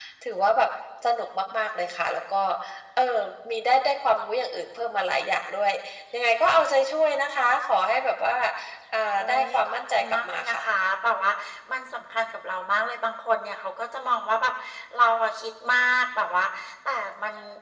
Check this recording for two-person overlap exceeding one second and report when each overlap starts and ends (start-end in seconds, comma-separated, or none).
9.2-10.6